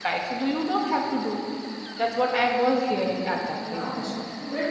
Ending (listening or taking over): taking over